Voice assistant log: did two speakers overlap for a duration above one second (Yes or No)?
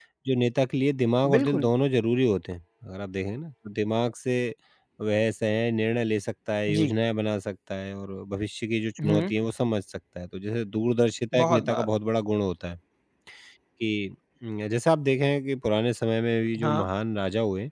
No